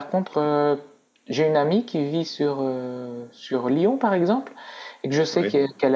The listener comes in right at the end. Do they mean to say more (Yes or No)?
No